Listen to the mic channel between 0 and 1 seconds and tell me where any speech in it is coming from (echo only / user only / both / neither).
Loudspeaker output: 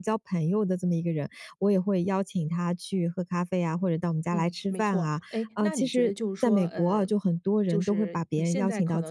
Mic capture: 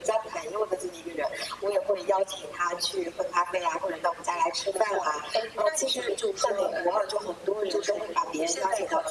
echo only